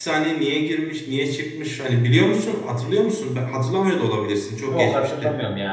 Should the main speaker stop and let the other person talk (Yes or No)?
Yes